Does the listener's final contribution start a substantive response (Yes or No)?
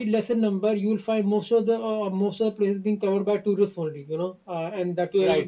No